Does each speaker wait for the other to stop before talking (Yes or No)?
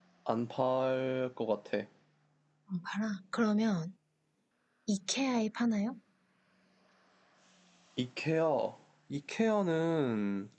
Yes